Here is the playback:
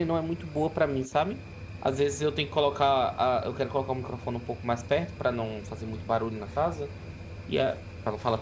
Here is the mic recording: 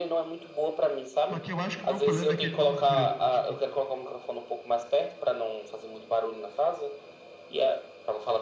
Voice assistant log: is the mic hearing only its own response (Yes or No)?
No